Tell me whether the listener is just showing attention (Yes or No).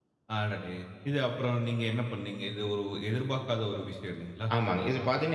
No